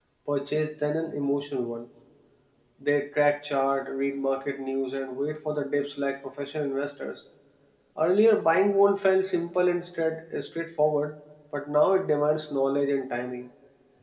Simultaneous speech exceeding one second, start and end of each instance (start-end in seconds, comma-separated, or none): none